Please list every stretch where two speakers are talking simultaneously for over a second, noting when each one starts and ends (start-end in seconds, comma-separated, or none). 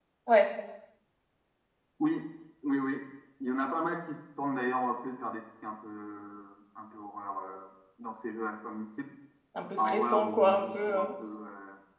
9.8-11.0